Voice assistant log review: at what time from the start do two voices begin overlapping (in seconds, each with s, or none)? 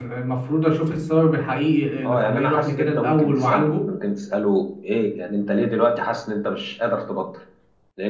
2.0 s